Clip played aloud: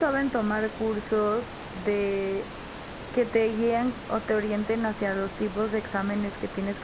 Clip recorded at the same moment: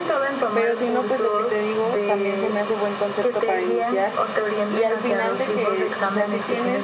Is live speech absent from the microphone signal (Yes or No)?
No